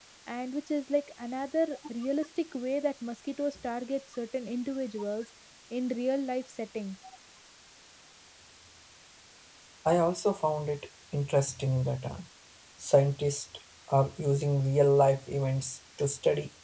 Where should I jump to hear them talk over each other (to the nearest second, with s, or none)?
none